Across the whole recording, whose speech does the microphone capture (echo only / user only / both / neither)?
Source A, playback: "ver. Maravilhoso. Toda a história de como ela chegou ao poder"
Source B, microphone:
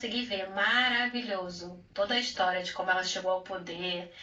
echo only